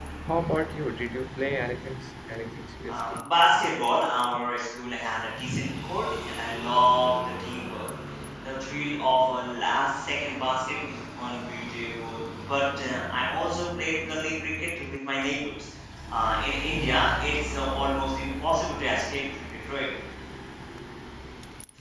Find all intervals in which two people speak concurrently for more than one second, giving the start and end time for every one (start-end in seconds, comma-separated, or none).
none